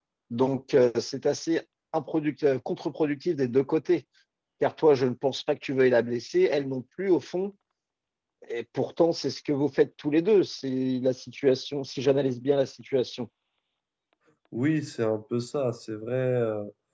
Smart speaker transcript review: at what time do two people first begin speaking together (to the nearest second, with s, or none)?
none